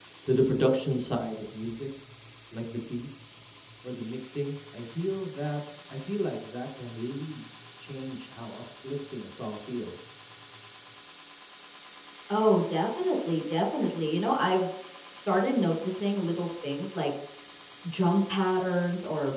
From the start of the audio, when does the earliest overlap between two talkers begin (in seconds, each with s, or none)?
none